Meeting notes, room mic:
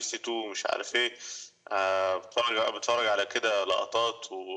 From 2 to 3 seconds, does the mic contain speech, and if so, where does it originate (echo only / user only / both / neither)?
echo only